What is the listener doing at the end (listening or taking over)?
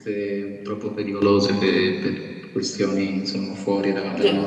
listening